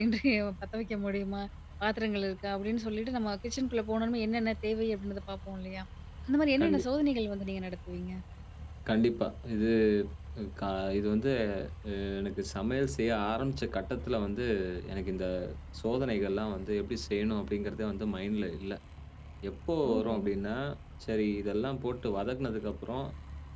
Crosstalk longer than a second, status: none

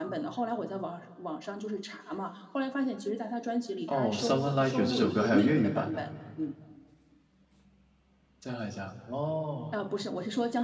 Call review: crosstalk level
present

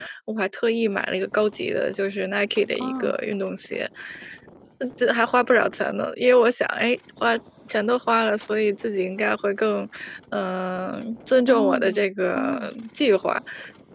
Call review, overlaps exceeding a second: present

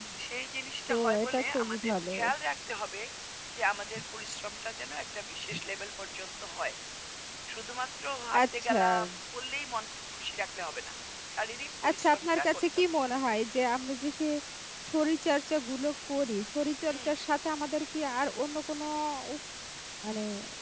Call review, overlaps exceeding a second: present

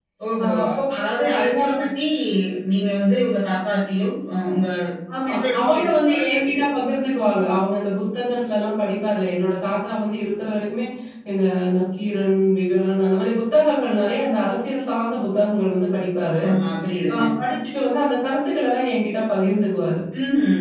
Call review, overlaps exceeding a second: present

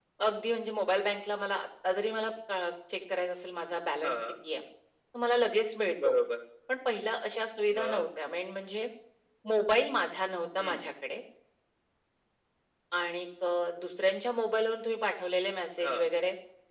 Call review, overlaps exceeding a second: none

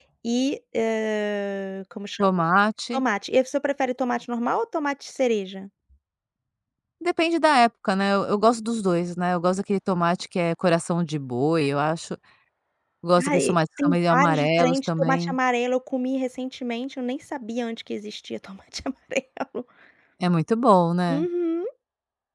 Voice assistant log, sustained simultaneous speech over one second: present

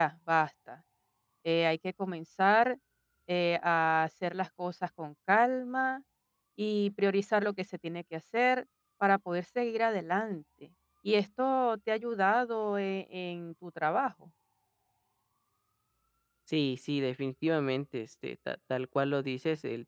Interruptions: none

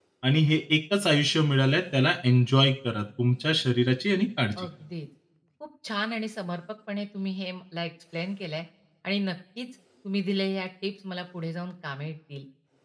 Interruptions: none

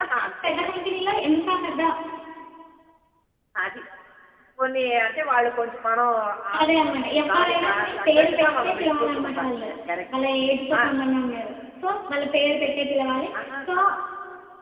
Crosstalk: present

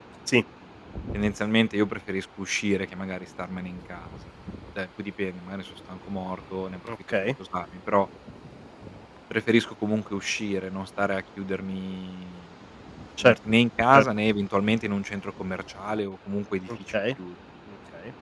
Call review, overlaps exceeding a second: none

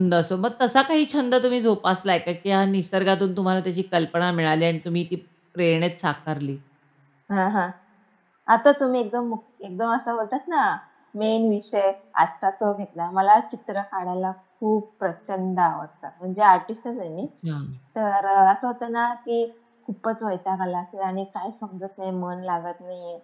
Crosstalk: none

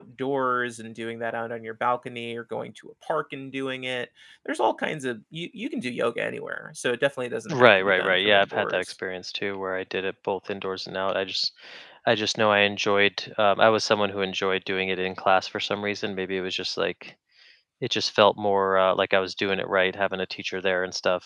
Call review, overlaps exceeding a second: present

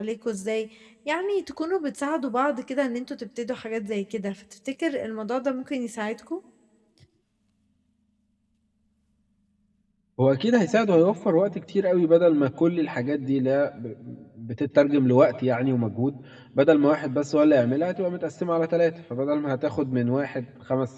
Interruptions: none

